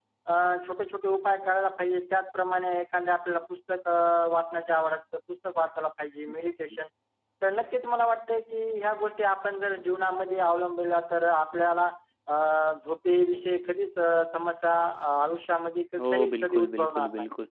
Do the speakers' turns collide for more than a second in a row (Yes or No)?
Yes